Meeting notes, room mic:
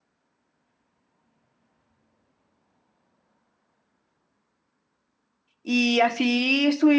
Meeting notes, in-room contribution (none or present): present